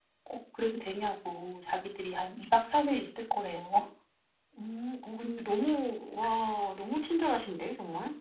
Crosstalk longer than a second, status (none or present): none